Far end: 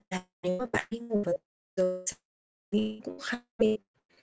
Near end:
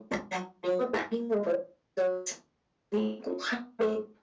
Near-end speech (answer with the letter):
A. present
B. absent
B